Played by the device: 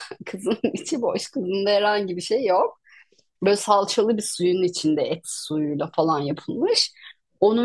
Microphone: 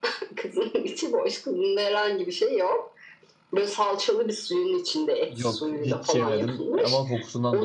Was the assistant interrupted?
Yes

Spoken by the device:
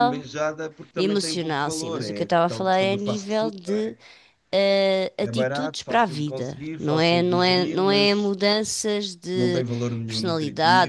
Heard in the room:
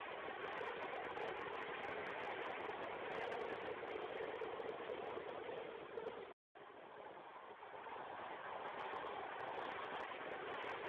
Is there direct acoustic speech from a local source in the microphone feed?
No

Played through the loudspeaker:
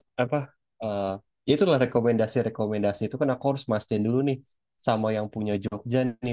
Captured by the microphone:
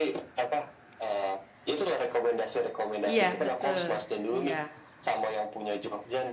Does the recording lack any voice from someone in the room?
No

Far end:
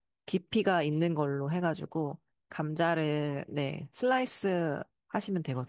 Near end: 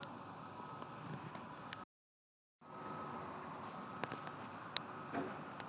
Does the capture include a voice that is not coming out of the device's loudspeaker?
No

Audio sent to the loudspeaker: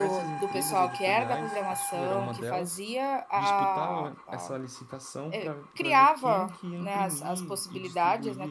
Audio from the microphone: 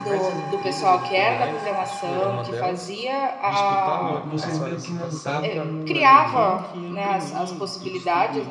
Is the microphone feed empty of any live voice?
No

